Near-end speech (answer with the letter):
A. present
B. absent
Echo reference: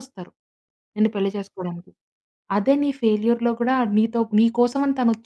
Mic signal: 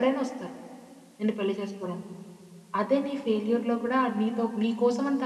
B